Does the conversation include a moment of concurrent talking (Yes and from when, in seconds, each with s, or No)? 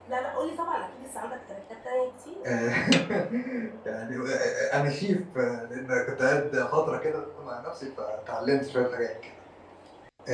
No